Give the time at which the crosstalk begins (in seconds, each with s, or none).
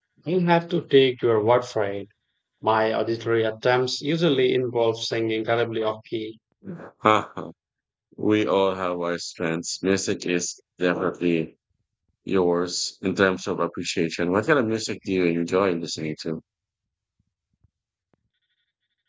none